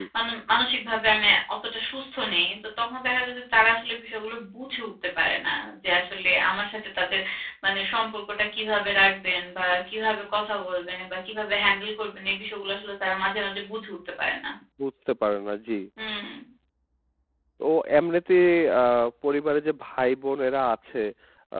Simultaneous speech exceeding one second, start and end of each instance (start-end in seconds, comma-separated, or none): none